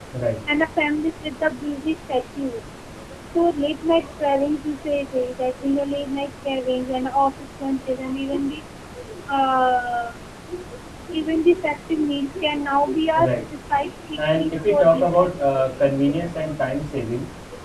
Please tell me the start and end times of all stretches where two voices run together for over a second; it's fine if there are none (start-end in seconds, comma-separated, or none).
14.2-15.5